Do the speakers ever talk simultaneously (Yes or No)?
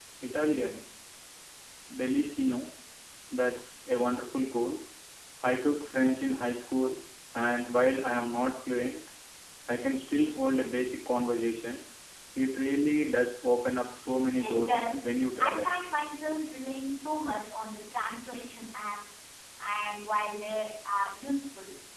Yes